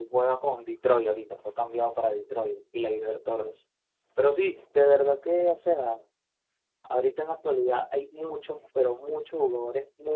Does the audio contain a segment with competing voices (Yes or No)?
No